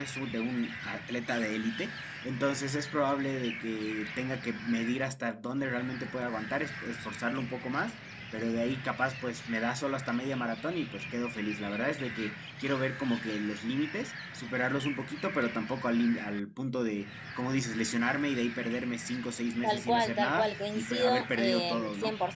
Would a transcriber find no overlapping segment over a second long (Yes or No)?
No